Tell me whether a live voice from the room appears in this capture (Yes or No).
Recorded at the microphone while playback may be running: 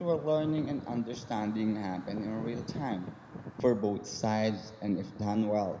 Yes